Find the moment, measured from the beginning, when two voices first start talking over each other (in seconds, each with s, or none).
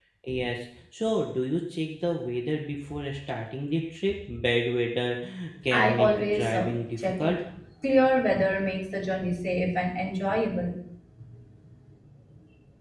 5.7 s